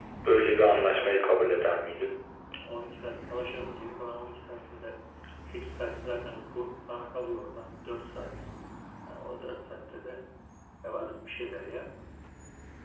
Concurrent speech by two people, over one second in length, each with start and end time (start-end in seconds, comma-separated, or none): 0.5-1.8